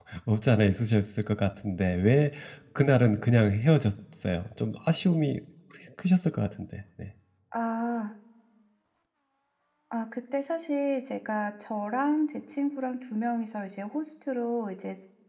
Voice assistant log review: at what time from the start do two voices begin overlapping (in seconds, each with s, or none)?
none